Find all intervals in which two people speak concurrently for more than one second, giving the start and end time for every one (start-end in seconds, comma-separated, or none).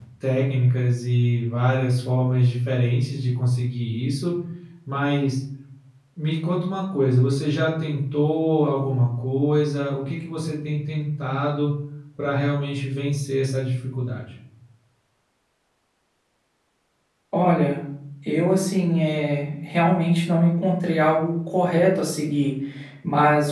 none